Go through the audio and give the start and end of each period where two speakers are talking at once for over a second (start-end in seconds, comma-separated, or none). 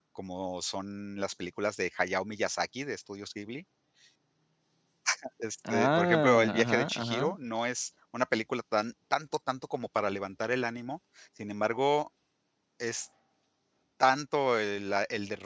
5.7-7.4